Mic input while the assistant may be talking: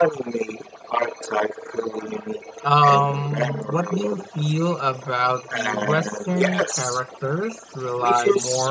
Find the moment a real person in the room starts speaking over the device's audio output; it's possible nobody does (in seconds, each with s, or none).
2.6 s